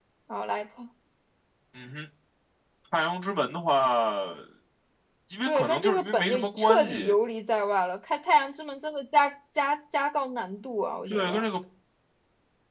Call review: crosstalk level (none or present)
present